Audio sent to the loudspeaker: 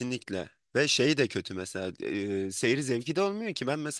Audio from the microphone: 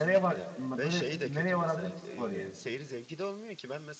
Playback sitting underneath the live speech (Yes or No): Yes